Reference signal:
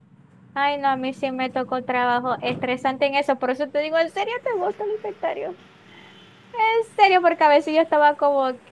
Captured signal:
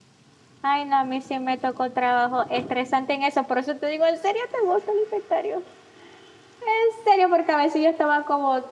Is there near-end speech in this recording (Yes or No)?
No